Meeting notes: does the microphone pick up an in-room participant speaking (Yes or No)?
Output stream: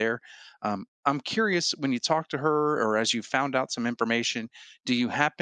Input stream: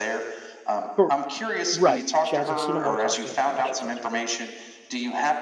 Yes